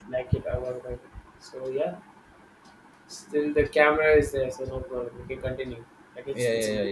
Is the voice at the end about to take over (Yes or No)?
Yes